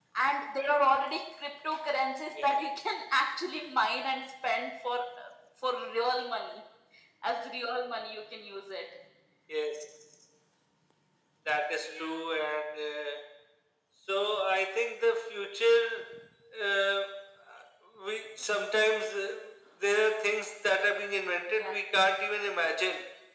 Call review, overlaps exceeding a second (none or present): none